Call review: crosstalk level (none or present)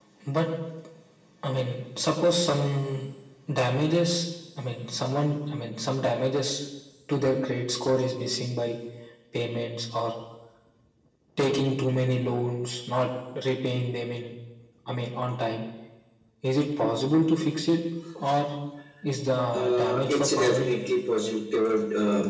present